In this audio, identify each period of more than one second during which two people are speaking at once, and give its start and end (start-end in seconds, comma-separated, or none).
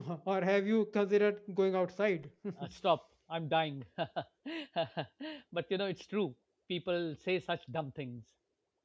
none